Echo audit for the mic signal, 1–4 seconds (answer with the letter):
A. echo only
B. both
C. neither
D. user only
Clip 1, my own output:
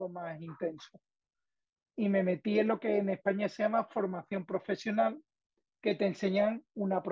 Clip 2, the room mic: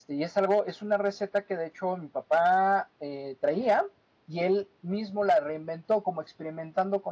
D